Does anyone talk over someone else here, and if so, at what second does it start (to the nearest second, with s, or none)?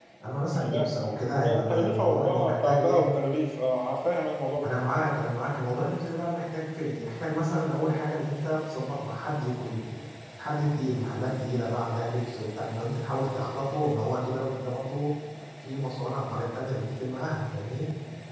1 s